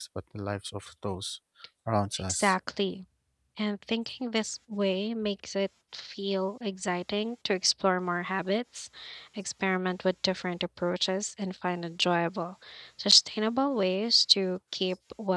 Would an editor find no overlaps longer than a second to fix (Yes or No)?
Yes